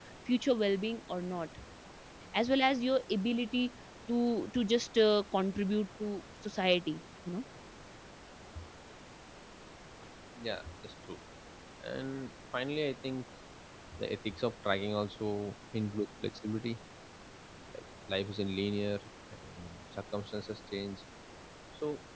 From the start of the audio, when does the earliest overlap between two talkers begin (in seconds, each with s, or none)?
none